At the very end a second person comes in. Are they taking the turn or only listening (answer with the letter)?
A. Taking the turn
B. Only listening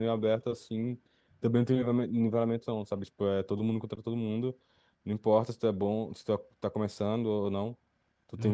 B